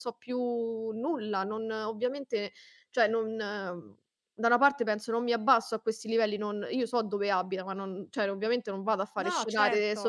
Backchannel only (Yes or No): Yes